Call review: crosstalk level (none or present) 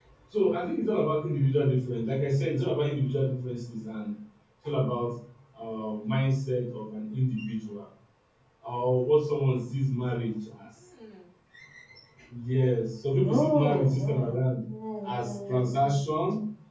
present